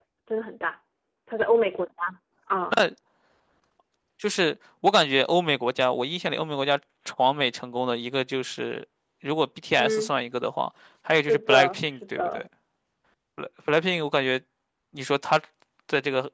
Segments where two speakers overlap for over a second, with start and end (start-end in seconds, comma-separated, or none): 11.1-12.4